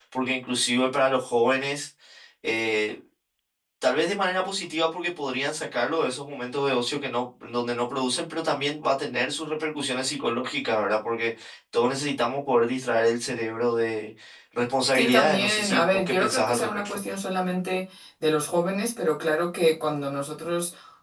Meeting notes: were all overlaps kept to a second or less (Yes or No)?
No